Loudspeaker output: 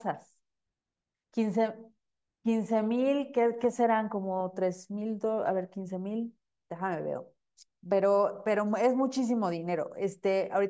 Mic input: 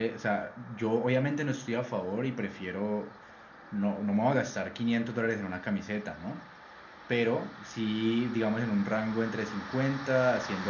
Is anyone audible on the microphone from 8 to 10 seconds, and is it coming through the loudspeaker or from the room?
user only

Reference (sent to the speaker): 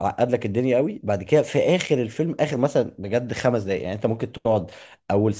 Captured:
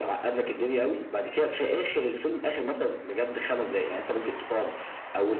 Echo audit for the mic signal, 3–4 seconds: echo only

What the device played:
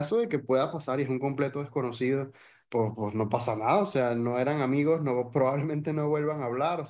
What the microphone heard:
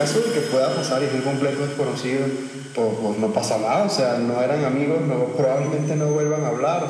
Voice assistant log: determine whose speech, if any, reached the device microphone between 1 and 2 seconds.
echo only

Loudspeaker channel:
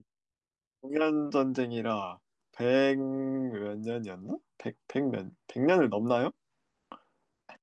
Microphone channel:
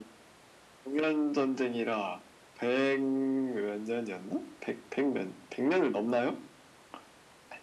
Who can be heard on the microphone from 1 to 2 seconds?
echo only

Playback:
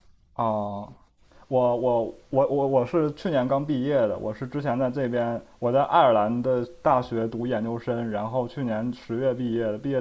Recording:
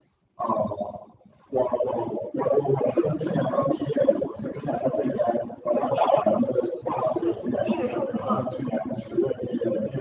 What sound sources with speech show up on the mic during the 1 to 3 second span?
echo only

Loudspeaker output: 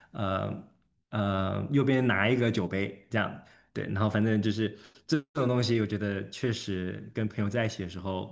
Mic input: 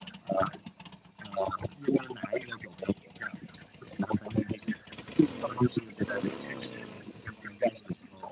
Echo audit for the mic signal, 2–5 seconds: echo only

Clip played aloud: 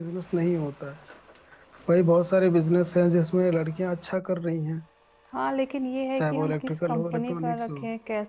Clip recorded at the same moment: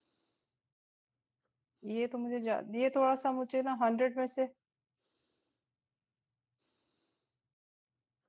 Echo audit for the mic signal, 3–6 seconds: user only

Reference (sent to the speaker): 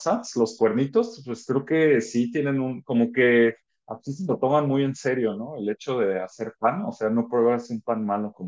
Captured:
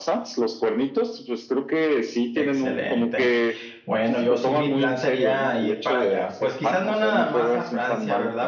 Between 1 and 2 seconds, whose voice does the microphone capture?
echo only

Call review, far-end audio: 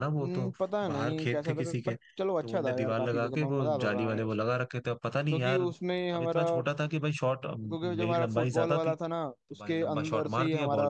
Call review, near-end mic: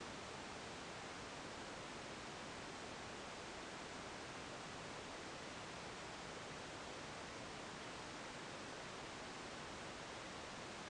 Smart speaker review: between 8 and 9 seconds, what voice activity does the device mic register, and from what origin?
neither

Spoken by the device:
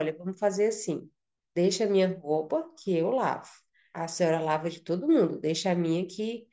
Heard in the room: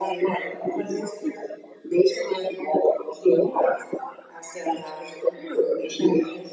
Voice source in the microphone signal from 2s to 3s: echo only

